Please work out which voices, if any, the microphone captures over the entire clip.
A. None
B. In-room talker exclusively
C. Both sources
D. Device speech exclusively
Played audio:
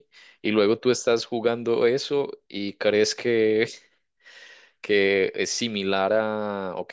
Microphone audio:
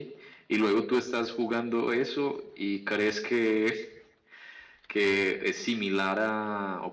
D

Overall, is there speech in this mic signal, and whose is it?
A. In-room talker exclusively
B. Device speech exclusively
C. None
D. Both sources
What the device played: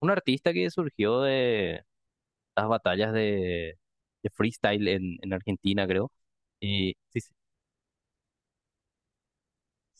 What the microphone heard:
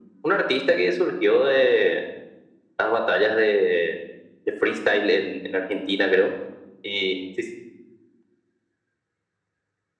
B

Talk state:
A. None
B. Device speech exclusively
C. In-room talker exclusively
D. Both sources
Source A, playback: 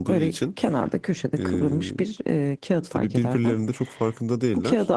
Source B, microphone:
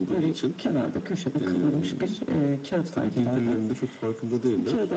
B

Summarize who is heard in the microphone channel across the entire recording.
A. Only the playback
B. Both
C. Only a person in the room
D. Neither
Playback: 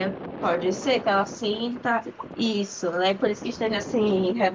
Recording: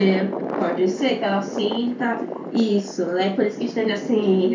A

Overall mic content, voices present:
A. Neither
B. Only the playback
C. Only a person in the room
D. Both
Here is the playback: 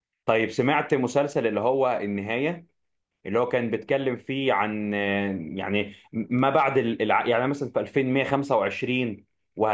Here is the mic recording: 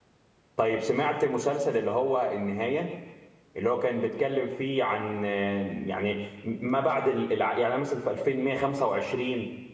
B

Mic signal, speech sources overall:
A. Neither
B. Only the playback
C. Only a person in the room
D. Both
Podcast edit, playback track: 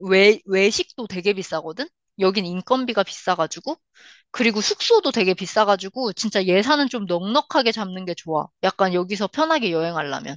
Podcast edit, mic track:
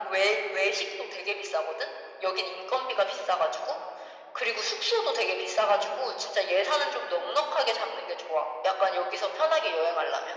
B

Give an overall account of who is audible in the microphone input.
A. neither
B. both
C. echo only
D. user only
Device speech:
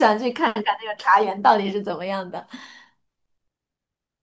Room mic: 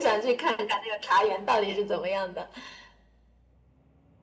C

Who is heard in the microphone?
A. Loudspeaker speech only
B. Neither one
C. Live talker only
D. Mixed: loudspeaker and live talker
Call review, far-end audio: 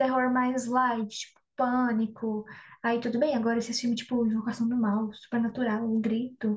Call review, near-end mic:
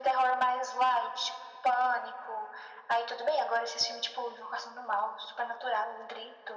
A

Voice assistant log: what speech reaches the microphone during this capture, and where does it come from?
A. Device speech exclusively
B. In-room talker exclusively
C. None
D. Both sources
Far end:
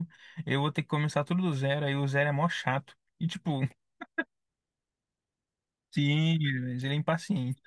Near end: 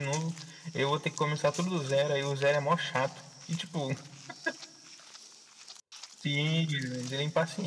A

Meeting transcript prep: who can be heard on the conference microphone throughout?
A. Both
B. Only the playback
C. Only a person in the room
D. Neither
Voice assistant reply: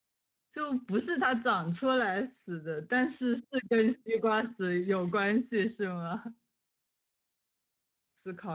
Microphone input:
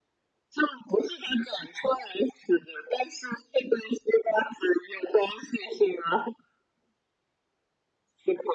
B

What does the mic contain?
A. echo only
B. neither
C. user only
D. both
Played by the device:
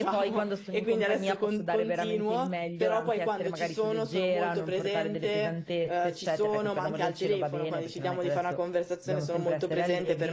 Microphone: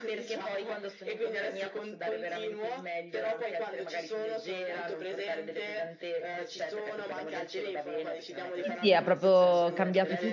D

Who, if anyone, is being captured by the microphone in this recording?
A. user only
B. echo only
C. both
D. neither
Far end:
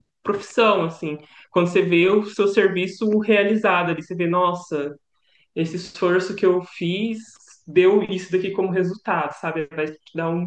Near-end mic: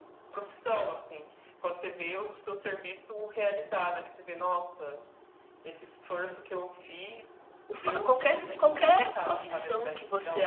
C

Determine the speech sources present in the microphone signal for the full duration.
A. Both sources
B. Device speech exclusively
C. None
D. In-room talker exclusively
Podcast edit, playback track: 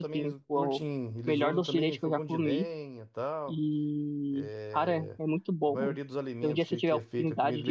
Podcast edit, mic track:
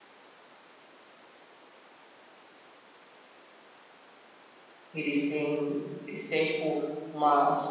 D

